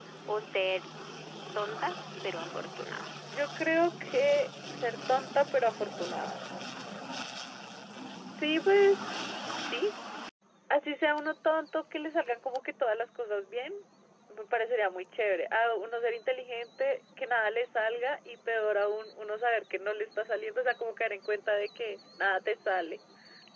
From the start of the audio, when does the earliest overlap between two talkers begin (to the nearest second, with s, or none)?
none